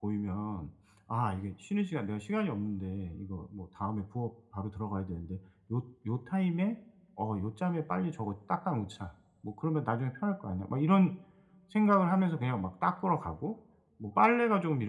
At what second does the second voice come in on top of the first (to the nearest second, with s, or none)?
none